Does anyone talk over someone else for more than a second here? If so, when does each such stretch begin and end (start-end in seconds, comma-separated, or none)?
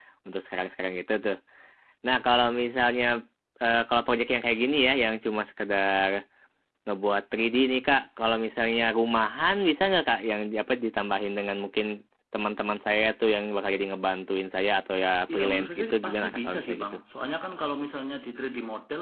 15.3-17.0